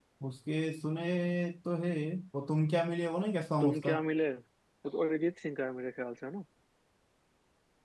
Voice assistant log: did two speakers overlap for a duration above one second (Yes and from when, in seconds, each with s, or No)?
No